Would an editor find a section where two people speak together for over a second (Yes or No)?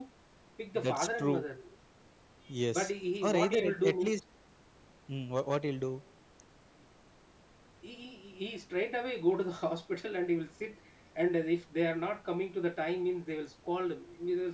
Yes